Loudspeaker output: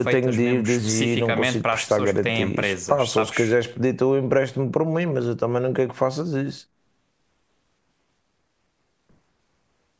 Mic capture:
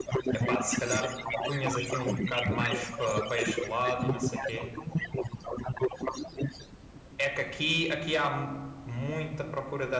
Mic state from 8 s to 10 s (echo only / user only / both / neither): user only